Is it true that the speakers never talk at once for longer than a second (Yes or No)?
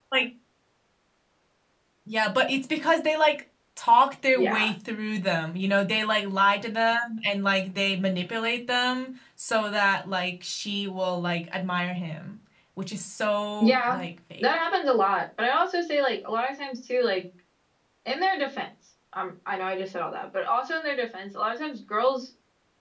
Yes